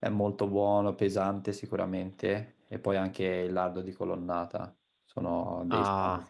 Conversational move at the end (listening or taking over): taking over